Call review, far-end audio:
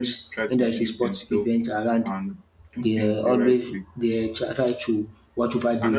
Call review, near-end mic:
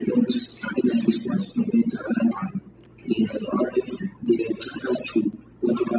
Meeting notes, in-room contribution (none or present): none